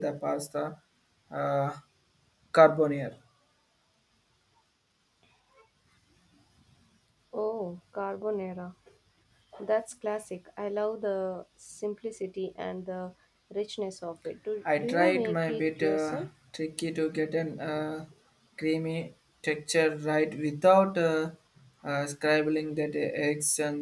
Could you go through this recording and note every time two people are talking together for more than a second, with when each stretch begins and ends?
14.8-16.3

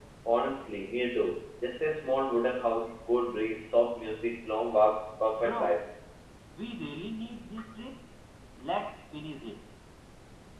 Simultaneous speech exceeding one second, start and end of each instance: none

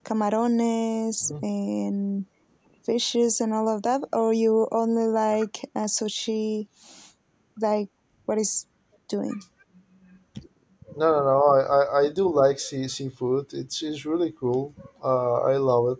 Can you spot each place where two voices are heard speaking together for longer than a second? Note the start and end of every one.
none

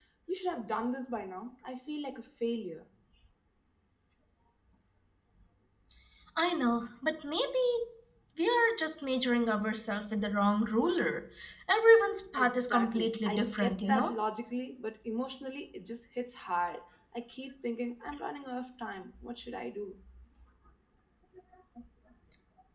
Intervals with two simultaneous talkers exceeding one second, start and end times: 12.4-14.1

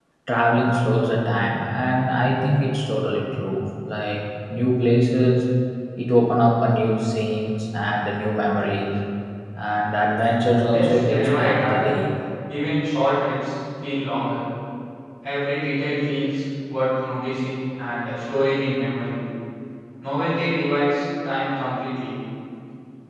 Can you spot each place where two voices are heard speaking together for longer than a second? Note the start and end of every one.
10.7-11.9

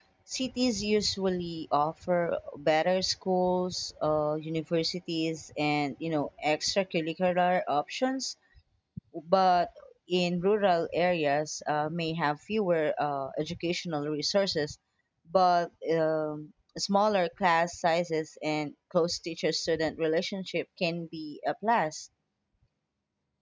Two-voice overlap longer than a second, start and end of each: none

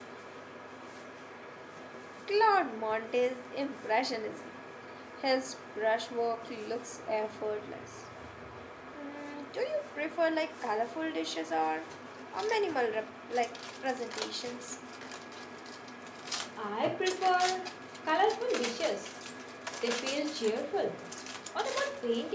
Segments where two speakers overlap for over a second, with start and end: none

